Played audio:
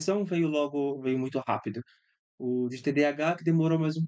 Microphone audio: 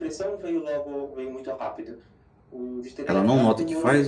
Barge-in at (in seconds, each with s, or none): 3.1 s